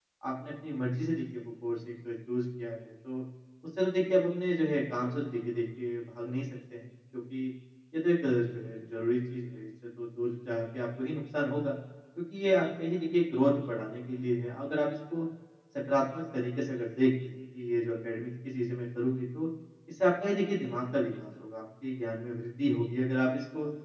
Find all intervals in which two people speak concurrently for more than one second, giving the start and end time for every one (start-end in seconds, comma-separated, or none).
none